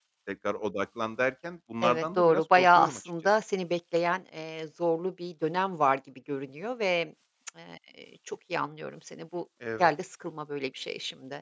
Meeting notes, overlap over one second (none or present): present